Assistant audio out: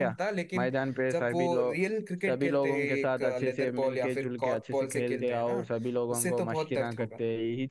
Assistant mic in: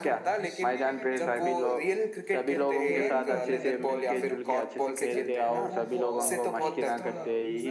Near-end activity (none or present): present